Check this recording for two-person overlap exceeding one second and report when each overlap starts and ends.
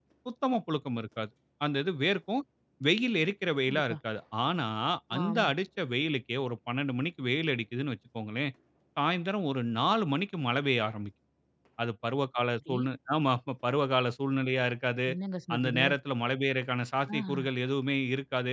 none

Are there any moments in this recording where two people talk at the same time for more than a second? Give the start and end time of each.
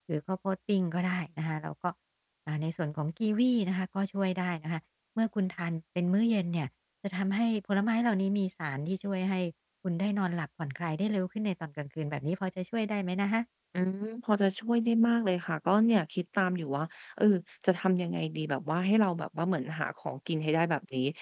none

